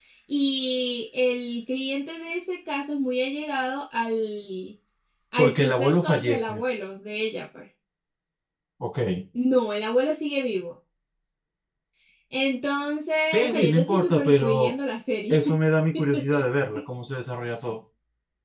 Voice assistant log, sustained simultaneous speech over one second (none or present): present